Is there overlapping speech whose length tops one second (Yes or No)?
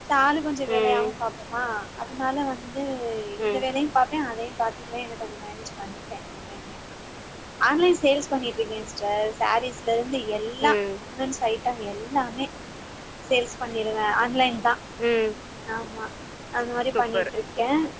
No